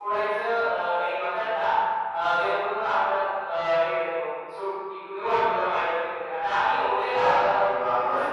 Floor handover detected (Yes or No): Yes